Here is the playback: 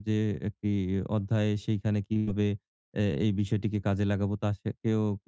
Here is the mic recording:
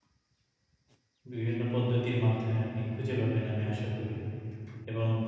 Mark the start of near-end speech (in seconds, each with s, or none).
1.3 s